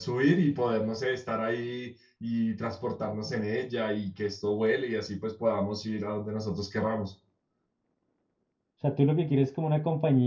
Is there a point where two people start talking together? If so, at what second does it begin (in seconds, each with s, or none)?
none